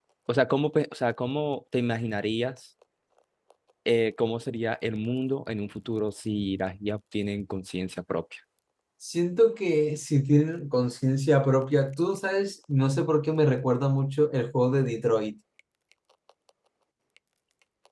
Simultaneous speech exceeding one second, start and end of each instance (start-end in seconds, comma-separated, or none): none